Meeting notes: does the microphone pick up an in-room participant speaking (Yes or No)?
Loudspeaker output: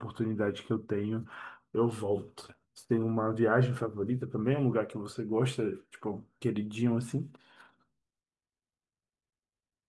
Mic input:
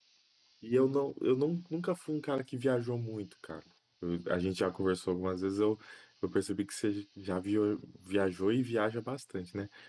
Yes